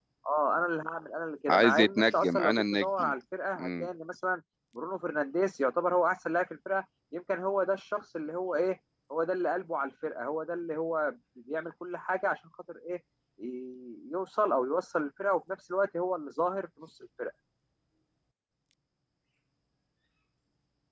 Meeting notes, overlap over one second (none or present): present